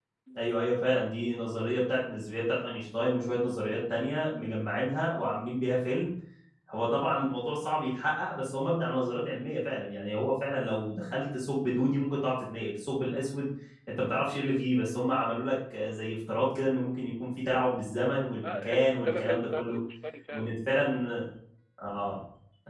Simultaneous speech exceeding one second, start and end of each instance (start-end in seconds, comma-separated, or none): 18.4-19.8